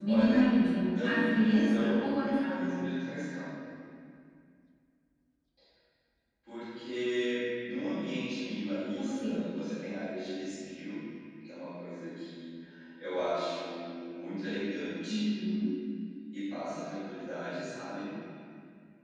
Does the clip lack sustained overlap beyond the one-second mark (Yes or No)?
No